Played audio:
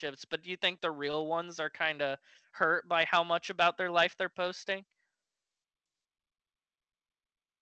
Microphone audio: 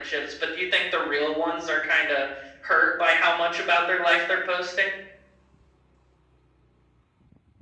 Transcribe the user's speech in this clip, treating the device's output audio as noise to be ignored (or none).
none